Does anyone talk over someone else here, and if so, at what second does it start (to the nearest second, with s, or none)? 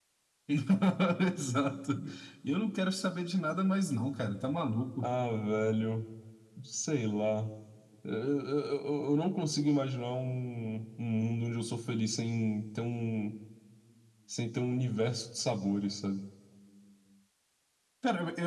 none